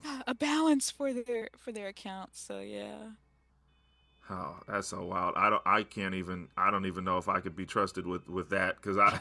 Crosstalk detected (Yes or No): No